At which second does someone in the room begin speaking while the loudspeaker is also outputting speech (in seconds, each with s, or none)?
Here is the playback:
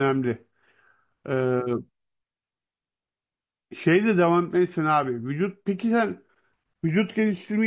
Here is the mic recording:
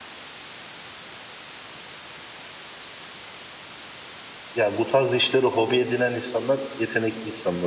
4.5 s